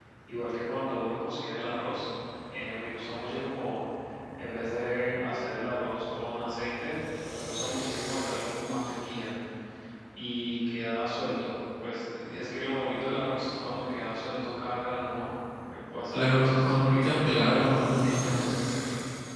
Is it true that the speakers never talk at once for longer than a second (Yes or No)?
No